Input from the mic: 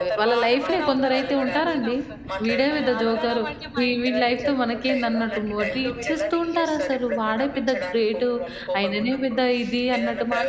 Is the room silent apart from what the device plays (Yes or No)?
No